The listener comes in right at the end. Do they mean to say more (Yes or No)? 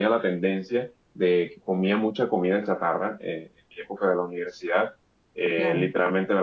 No